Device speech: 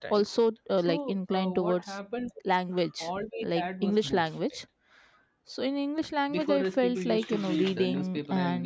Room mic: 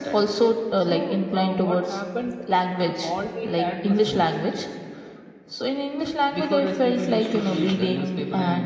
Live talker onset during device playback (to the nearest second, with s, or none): none